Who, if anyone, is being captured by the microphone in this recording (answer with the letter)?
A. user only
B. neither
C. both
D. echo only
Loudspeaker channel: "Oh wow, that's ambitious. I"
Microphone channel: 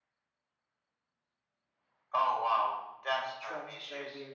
C